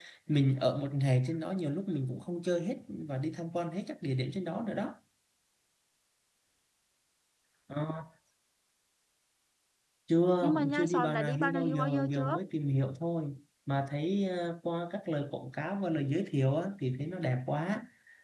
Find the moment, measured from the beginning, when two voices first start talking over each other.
10.4 s

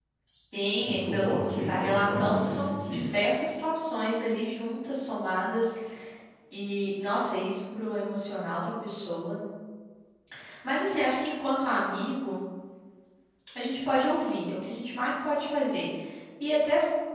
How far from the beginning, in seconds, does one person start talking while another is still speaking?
0.8 s

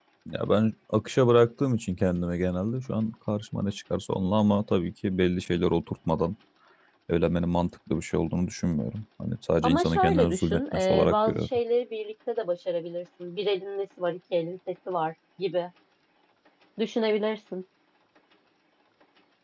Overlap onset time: 9.6 s

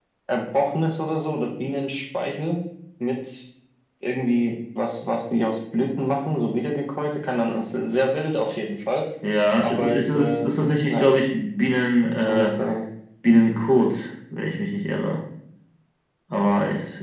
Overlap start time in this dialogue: 9.6 s

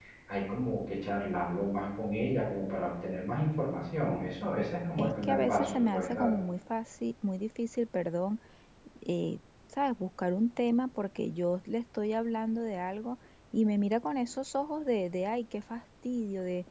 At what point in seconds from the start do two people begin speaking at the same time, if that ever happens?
5.0 s

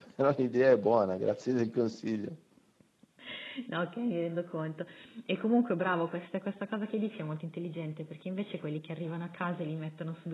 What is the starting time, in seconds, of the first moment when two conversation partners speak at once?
none

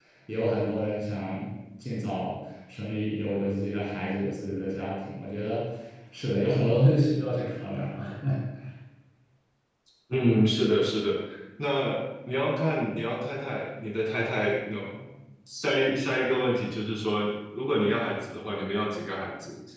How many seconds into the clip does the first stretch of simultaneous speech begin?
none

